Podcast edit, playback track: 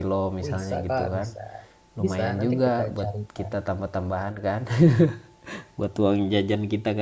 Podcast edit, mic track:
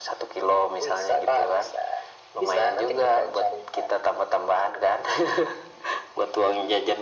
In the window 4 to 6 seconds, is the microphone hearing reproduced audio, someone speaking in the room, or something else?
echo only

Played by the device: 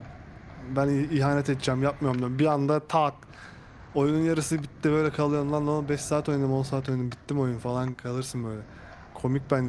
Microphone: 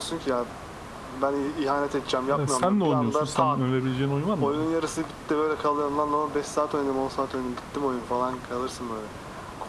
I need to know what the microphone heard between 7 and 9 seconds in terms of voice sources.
echo only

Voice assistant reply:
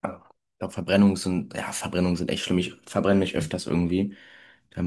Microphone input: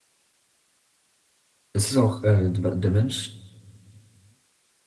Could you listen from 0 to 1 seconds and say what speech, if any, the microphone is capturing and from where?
neither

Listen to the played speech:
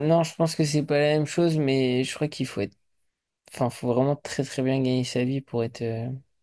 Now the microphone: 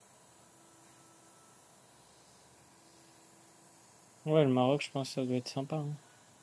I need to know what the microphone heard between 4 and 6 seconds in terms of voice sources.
user only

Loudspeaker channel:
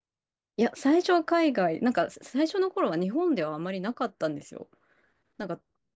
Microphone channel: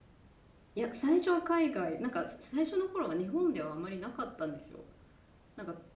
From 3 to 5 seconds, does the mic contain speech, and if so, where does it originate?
echo only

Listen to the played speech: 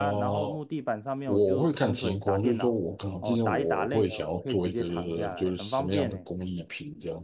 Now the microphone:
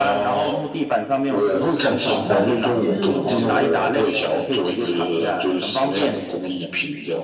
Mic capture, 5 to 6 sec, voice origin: echo only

